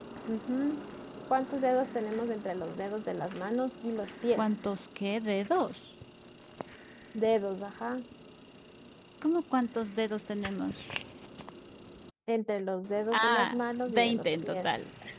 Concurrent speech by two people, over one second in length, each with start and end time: 13.1-14.7

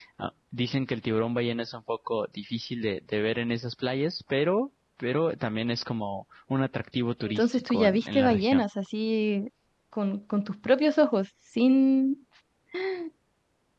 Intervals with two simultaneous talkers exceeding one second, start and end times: 7.2-8.6

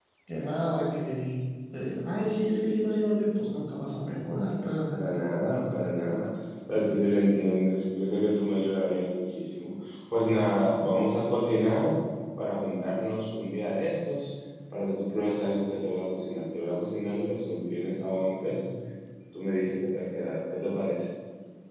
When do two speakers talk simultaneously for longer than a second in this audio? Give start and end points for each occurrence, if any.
none

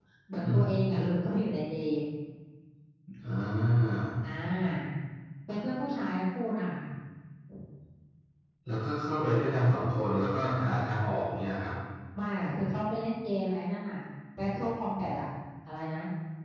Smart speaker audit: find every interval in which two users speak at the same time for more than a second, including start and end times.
none

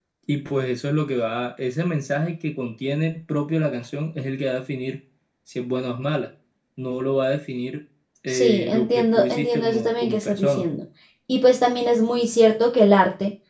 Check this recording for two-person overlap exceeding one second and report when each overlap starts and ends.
8.3-10.6

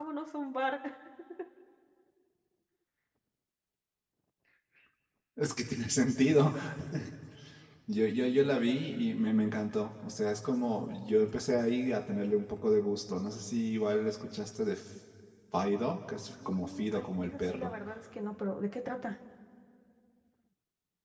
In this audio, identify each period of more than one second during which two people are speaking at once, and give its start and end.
16.3-17.7

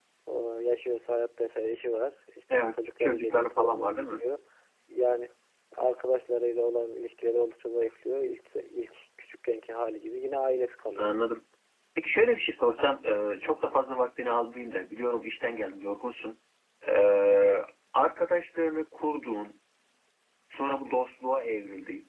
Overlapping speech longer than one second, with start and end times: 2.7-4.2

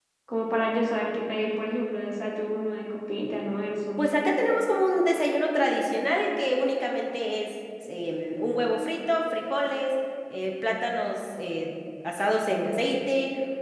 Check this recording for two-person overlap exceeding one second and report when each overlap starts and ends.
none

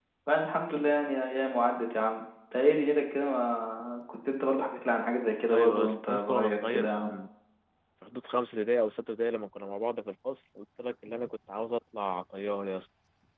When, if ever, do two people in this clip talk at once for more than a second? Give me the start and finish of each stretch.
5.5-7.1

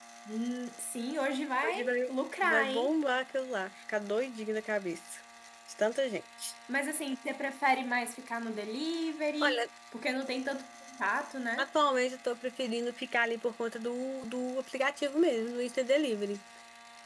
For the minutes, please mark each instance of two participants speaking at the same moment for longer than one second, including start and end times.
none

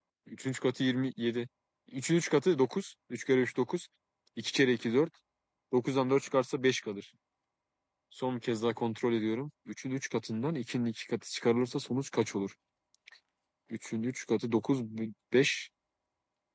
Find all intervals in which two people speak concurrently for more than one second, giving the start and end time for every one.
none

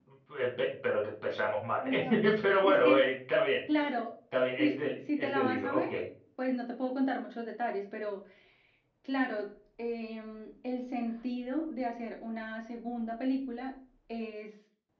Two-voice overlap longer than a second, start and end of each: 4.6-5.9

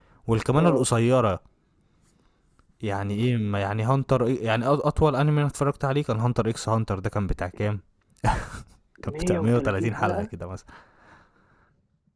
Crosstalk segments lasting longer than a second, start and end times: 9.0-10.2

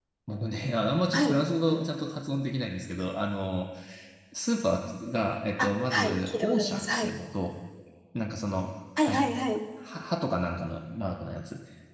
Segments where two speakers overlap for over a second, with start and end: 5.6-7.1

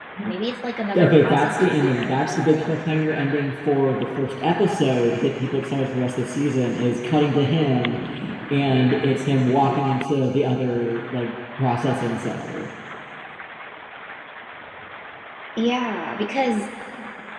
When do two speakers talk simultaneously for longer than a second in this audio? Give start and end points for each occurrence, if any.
0.9-2.8

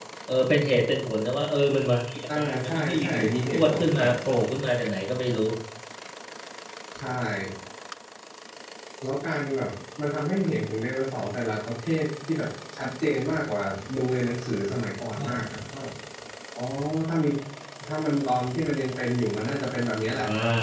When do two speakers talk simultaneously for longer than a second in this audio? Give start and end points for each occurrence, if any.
2.4-4.1

